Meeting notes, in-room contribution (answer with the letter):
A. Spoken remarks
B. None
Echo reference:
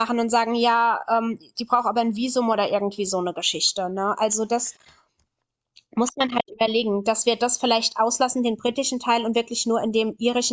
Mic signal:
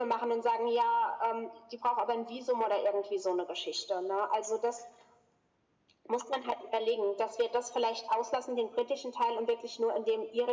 B